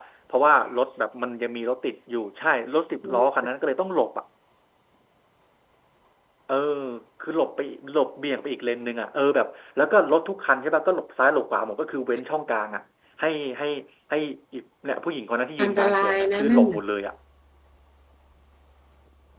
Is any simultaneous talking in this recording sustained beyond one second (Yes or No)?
Yes